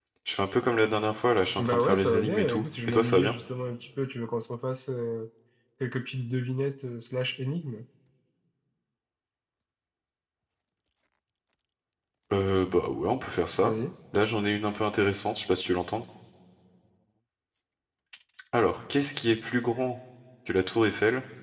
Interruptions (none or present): present